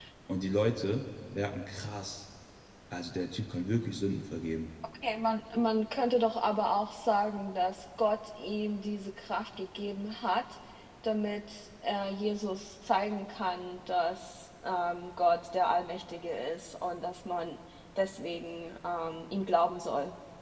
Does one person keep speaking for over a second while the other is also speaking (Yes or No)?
No